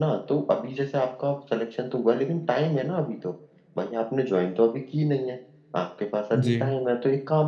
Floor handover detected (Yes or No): No